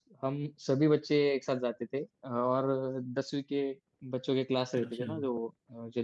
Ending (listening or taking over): listening